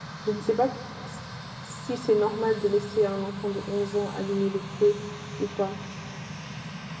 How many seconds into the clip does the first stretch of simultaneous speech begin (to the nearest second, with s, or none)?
none